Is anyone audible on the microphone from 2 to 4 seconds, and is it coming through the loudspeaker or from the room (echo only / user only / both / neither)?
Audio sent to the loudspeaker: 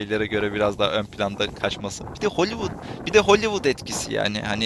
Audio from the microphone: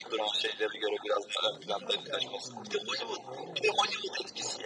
both